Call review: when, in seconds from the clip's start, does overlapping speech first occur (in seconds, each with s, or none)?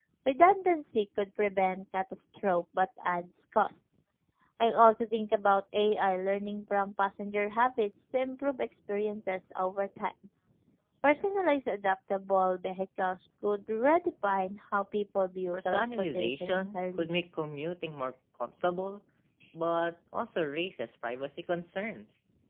15.5 s